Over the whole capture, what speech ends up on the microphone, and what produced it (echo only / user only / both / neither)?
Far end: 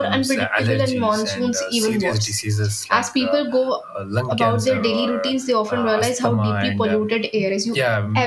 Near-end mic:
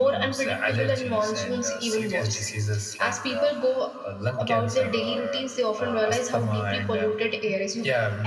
echo only